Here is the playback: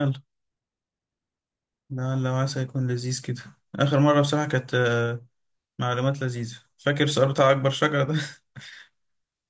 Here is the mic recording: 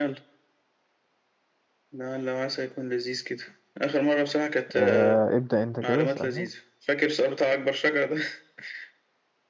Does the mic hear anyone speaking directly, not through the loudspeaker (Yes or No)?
Yes